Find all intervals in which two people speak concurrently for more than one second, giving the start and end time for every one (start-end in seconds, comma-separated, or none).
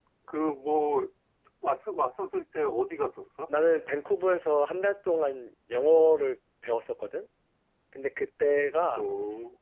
none